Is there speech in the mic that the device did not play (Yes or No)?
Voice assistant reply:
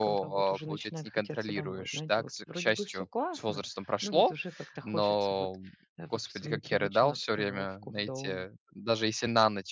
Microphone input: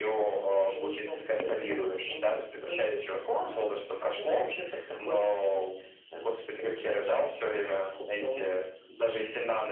No